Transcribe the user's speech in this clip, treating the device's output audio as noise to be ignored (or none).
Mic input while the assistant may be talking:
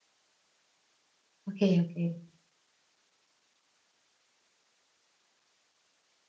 Oke oke.